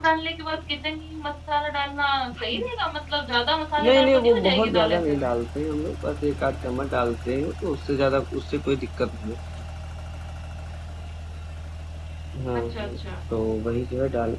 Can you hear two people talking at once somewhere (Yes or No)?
Yes